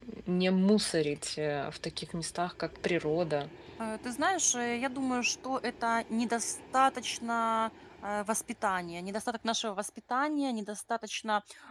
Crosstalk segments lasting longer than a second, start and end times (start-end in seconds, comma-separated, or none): none